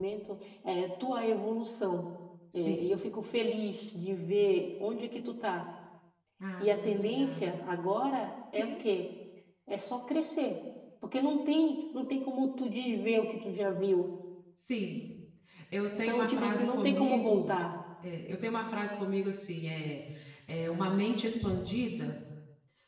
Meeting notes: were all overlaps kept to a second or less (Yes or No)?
No